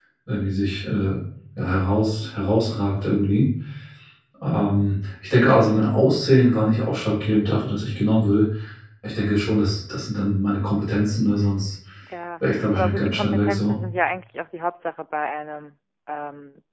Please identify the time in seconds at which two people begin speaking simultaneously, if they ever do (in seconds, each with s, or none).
12.5 s